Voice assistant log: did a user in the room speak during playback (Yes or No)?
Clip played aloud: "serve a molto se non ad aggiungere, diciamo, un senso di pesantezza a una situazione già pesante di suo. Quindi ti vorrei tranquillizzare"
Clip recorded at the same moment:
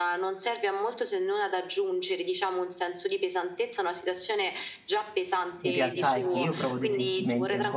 Yes